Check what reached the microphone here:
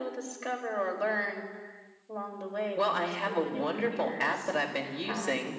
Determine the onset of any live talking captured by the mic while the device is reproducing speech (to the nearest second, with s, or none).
none